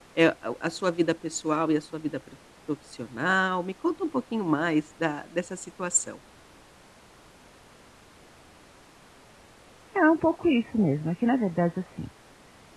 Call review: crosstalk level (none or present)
none